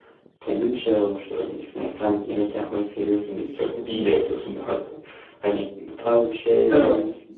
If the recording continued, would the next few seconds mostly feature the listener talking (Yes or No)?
No